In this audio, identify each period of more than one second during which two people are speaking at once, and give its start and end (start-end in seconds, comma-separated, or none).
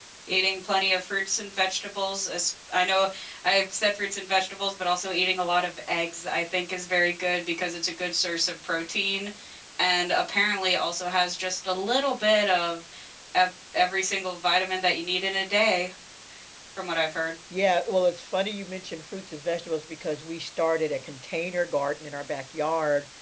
none